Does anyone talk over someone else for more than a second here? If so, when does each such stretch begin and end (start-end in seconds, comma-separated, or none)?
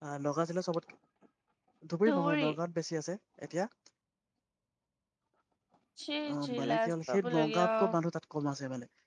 6.3-7.7